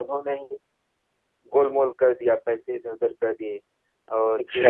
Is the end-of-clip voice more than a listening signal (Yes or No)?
No